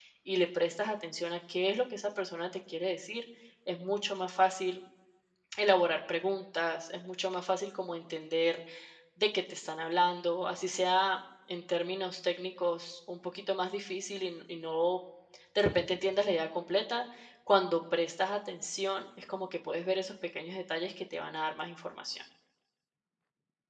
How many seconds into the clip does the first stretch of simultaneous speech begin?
none

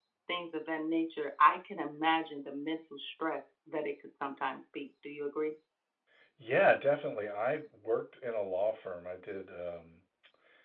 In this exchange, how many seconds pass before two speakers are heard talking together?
none

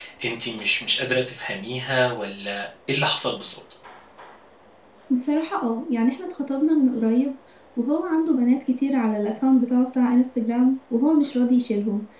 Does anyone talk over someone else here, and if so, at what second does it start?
none

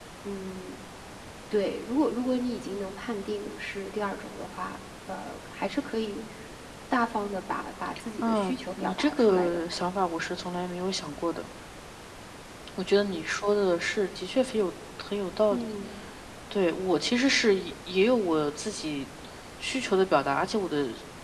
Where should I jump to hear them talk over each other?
8.2 s

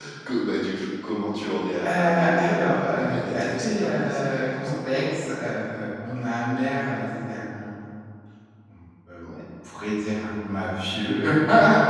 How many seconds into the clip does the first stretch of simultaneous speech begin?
1.8 s

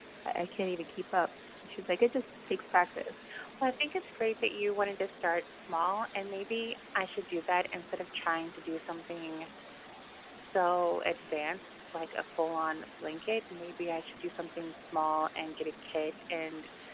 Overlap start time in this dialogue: none

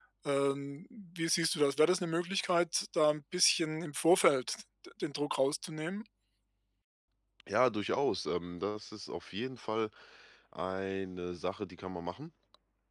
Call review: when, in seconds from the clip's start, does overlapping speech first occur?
none

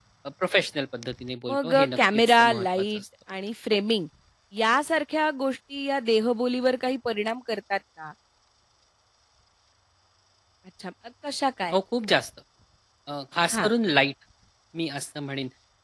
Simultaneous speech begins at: 1.5 s

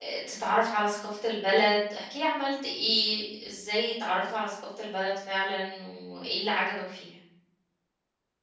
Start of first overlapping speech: none

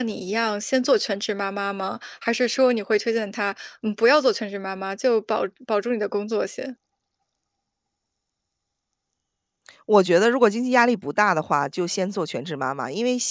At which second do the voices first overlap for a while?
none

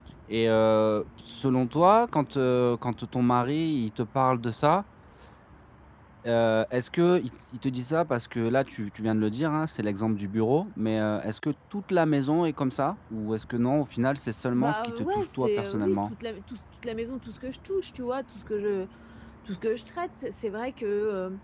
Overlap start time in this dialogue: 14.6 s

